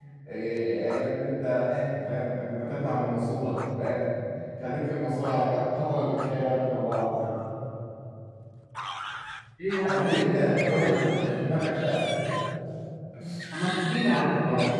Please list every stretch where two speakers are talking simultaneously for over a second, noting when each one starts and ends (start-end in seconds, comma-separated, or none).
9.8-11.4